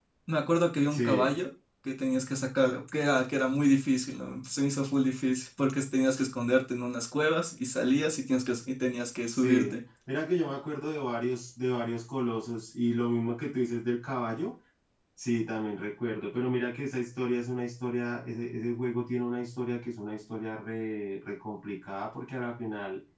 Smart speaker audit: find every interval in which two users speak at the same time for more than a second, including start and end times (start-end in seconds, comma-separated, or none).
none